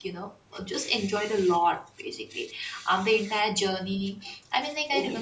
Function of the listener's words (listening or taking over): taking over